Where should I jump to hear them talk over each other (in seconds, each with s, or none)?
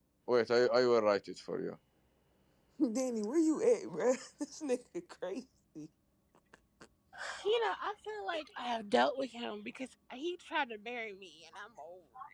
none